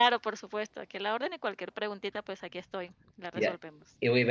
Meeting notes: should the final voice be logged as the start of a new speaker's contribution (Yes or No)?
Yes